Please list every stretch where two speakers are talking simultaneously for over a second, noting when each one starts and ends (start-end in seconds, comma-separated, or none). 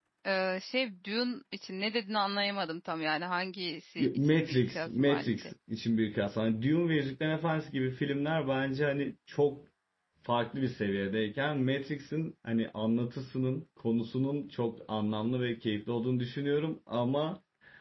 4.2-5.5